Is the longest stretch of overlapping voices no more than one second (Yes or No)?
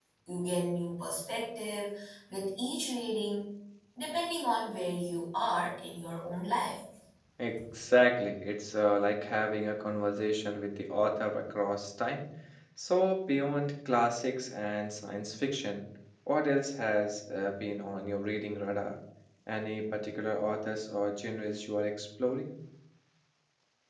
Yes